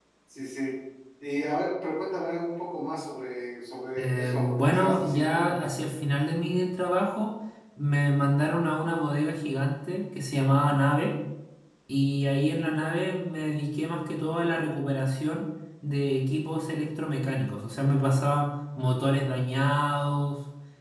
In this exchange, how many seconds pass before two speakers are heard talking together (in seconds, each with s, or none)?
4.0 s